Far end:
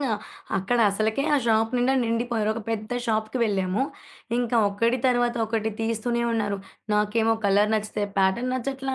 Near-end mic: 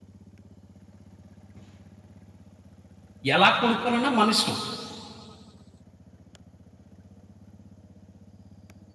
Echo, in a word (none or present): none